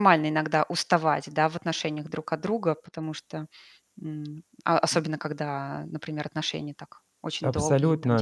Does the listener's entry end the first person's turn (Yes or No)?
Yes